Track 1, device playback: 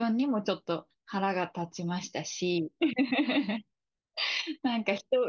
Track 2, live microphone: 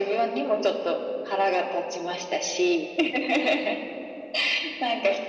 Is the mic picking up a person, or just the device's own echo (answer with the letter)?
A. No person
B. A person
A